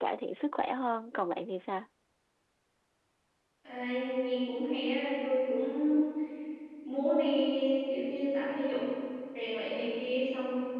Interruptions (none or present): none